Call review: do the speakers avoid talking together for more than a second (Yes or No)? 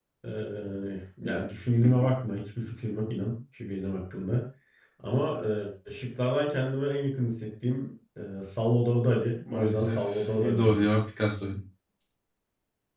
No